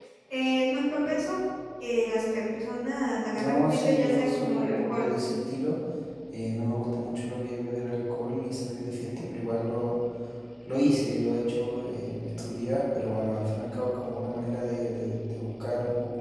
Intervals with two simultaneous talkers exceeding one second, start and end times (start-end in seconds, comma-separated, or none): 3.4-5.0